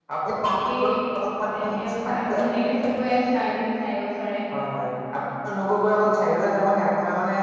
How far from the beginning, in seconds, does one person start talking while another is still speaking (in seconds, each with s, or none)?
none